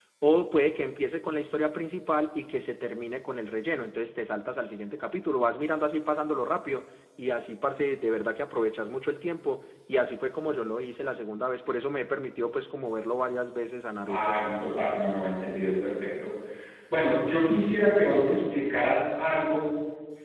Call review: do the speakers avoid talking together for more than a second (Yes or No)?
Yes